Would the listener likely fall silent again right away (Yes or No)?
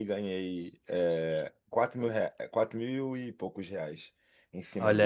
No